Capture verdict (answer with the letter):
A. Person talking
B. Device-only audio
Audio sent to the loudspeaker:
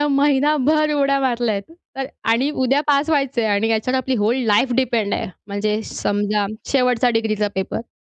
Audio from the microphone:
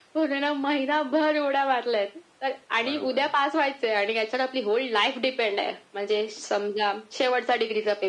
A